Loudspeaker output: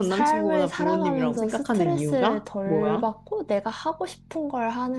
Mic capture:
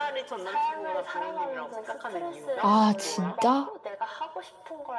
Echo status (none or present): present